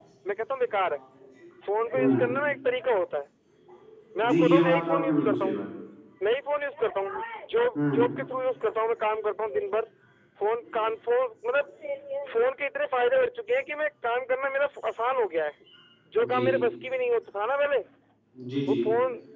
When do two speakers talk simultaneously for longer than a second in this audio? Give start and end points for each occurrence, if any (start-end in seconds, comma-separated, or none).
4.3-5.6